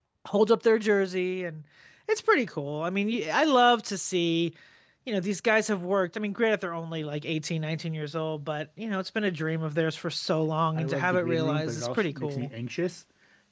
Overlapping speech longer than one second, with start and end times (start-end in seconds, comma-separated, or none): 10.8-12.5